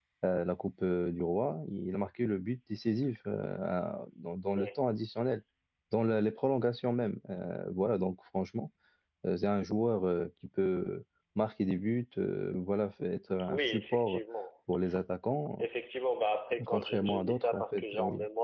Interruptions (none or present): present